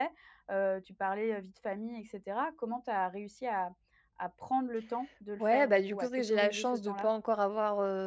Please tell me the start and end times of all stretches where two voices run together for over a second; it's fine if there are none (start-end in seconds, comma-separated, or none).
5.4-7.1